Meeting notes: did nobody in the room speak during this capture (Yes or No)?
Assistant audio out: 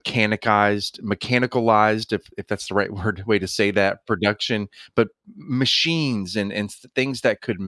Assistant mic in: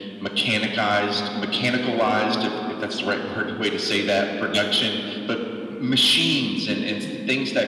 Yes